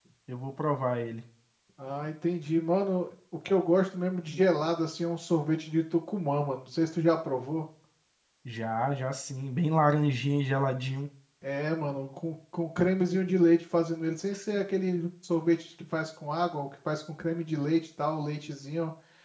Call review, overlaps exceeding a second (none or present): none